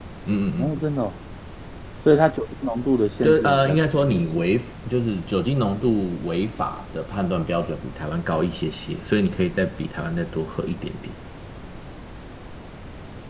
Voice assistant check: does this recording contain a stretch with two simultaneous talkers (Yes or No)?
Yes